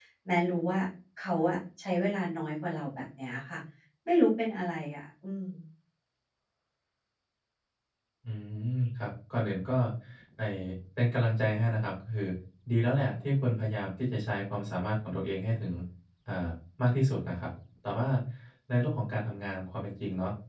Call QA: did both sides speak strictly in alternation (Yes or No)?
Yes